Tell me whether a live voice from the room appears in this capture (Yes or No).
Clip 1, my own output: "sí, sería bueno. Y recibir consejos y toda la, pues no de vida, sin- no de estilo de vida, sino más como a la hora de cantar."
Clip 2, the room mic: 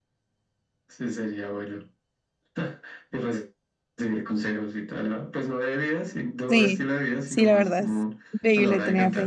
Yes